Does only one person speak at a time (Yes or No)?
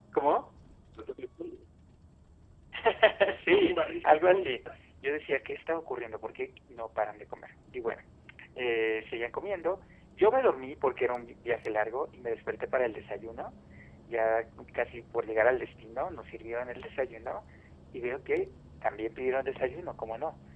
No